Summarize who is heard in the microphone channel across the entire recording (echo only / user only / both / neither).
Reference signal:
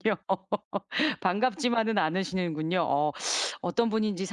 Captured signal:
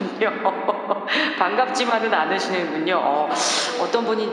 both